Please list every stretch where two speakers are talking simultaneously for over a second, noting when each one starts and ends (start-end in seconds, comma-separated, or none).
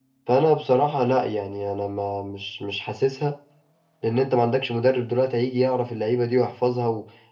none